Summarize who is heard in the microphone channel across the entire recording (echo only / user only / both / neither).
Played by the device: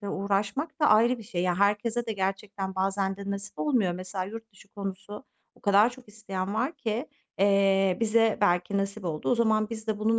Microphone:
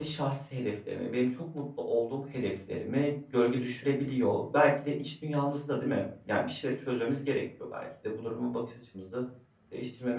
user only